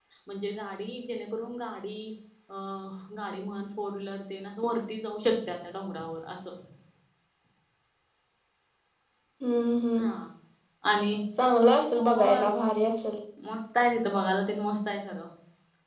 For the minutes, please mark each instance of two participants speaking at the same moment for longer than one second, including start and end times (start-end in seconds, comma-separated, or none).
none